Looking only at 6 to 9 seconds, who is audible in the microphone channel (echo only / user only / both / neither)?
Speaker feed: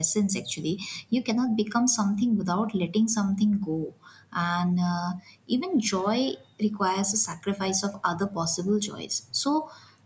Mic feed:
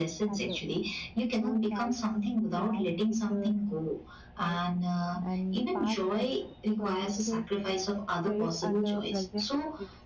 both